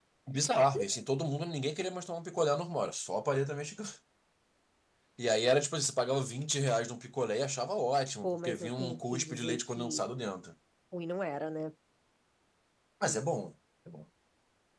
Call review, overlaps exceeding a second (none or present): present